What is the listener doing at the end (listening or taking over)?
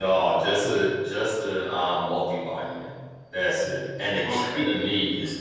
listening